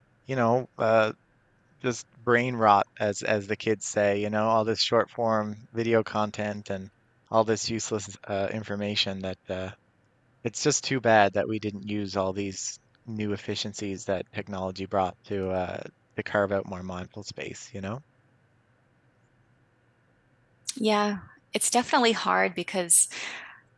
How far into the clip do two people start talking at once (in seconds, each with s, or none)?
none